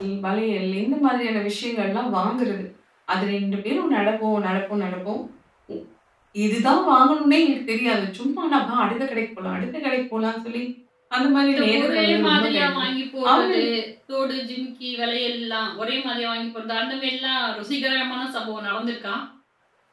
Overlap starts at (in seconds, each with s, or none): 11.5 s